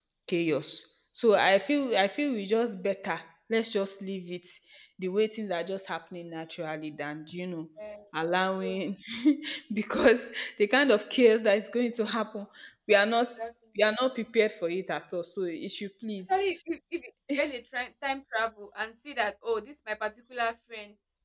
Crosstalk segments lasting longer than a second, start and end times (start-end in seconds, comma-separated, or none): none